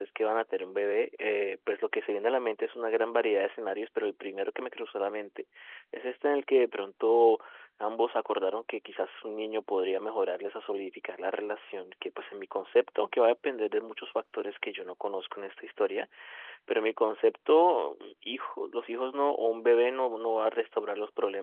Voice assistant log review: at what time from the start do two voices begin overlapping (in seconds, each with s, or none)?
none